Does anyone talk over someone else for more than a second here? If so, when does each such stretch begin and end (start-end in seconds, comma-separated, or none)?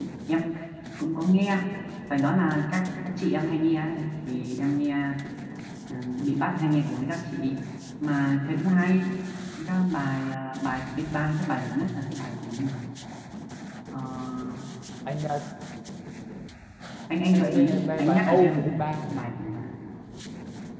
17.3-19.1